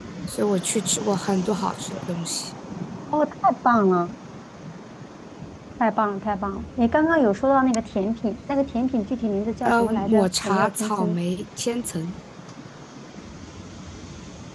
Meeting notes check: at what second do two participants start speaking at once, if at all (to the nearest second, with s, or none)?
10 s